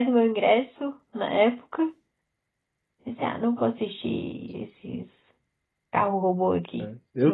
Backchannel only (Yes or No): No